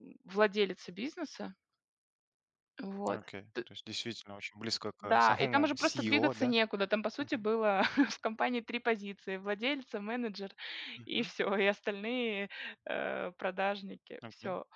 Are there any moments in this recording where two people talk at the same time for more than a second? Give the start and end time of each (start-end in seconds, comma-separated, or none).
5.0-6.5